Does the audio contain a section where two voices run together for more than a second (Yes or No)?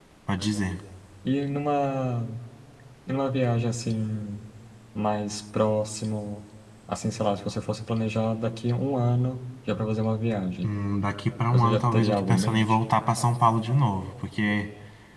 Yes